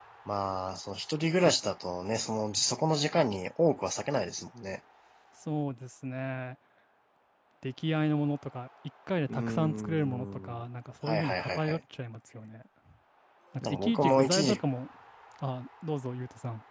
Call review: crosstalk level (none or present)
present